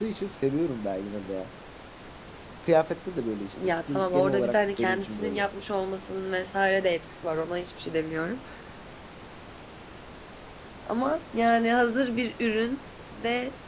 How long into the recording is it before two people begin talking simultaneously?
3.5 s

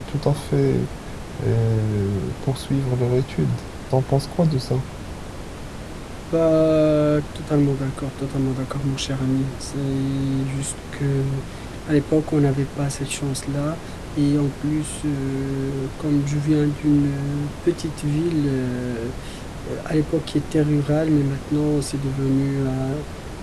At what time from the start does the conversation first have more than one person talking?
none

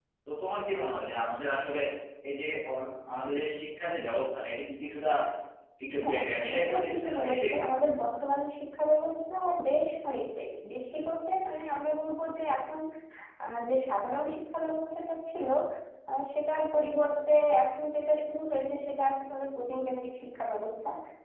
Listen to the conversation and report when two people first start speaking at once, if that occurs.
6.0 s

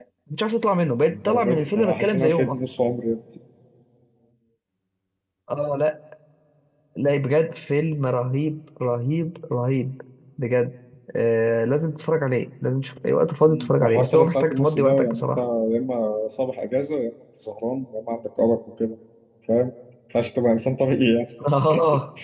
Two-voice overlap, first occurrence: 1.1 s

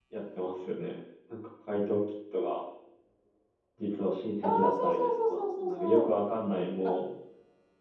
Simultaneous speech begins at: 4.4 s

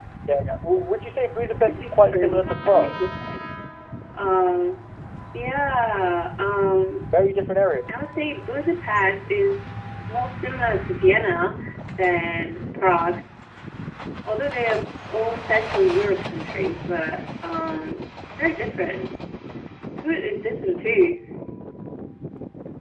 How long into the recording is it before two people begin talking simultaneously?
1.4 s

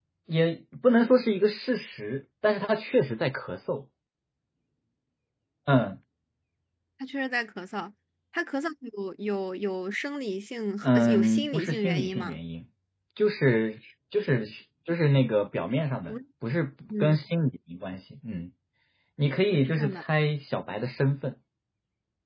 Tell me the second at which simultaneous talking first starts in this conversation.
10.8 s

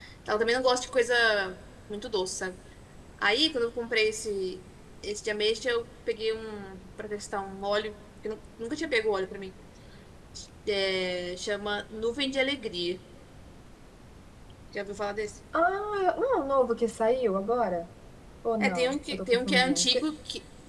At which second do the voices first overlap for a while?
18.6 s

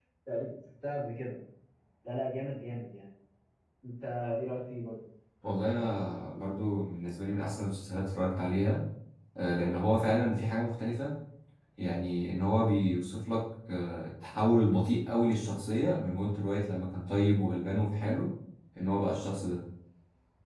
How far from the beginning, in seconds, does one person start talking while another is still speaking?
none

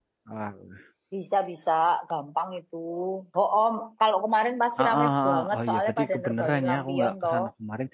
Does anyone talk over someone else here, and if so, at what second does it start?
4.8 s

